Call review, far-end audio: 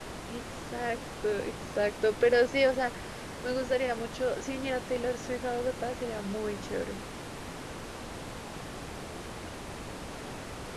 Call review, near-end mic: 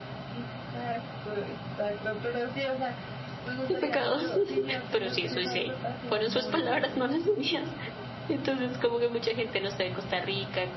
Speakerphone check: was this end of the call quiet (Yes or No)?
No